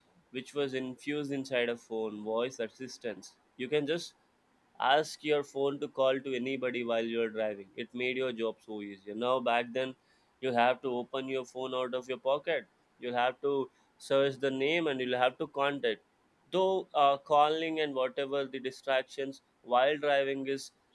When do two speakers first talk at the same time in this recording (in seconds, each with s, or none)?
none